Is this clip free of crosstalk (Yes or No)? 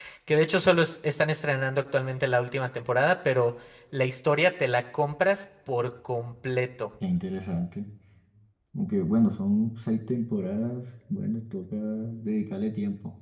Yes